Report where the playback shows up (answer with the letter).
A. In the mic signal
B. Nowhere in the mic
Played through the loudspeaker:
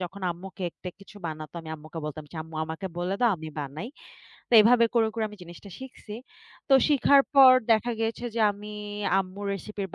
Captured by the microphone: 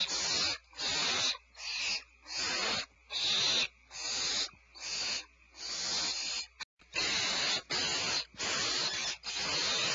B